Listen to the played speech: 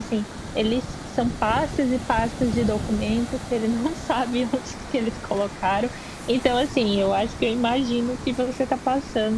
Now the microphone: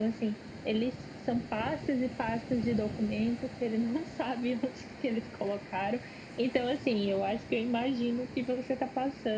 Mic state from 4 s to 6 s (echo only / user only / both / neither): echo only